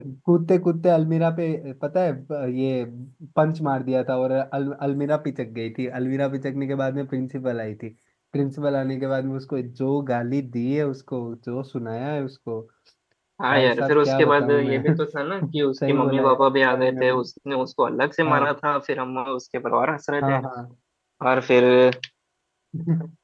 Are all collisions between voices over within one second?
No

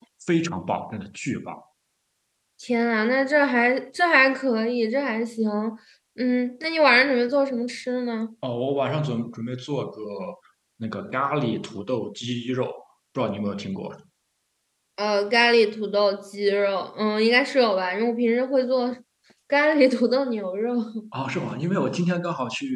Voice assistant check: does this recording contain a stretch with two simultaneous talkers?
No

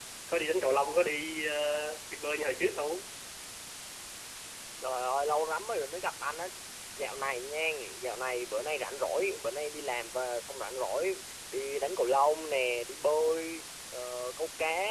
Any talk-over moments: No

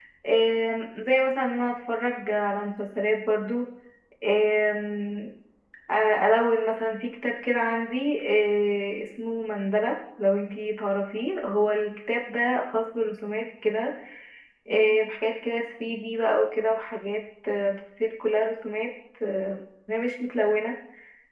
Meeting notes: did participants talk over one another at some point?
No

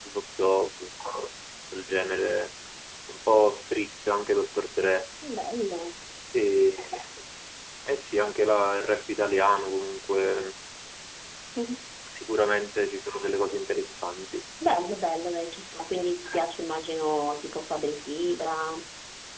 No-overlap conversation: Yes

